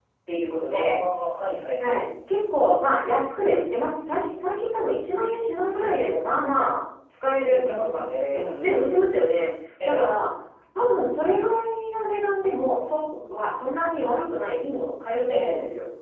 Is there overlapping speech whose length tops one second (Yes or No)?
Yes